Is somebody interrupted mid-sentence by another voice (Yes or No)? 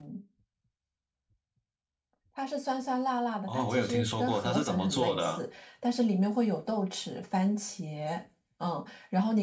Yes